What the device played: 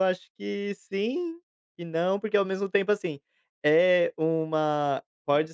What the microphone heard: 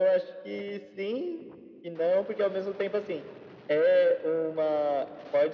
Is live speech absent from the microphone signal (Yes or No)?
Yes